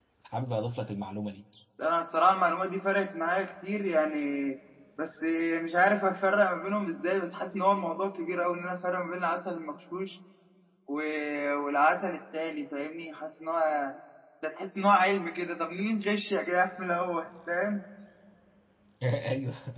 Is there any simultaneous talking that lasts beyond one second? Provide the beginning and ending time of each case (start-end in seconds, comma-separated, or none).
none